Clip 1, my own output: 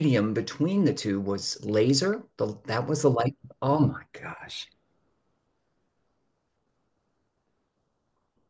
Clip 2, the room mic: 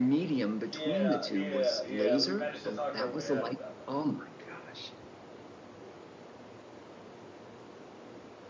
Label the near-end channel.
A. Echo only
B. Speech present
B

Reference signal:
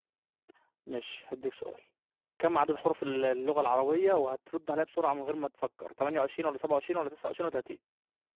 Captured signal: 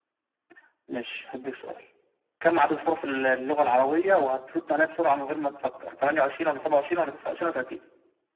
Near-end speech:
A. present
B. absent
B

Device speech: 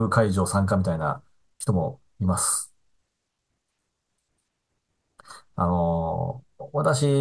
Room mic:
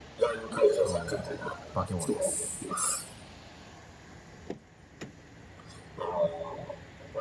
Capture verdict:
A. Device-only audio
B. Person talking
B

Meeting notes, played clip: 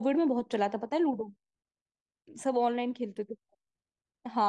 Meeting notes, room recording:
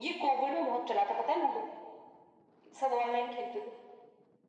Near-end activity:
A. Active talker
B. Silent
B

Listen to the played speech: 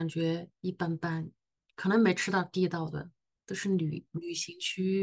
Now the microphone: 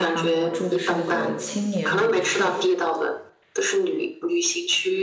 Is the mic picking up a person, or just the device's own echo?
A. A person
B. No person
A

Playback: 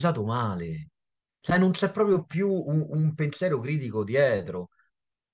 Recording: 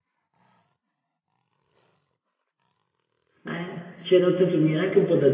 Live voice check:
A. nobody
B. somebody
B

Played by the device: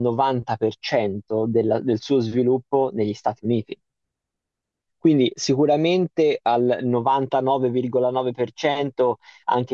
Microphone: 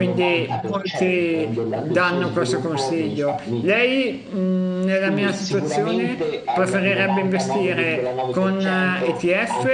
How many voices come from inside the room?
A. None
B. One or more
B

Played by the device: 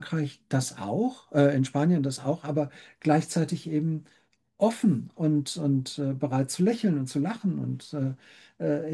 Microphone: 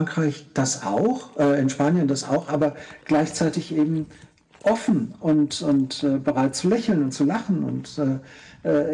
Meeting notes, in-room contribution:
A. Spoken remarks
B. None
B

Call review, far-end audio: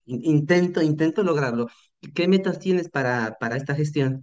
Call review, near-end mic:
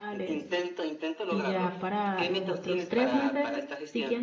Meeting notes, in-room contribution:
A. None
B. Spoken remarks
B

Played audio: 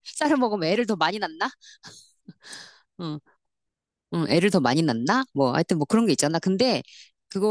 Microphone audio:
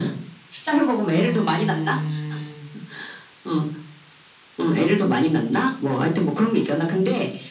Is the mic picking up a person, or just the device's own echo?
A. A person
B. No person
A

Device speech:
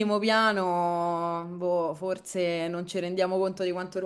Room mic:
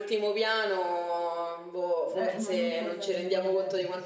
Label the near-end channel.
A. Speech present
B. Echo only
A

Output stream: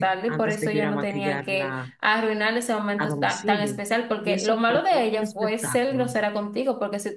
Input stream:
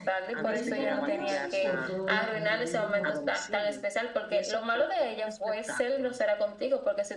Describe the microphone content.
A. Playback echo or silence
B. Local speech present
B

